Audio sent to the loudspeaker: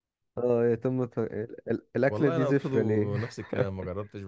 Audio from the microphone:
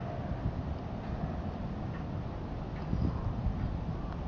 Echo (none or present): none